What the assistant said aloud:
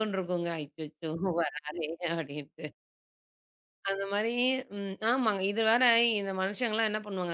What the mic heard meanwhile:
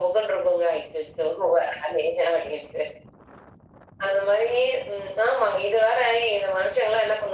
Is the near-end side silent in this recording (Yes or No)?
Yes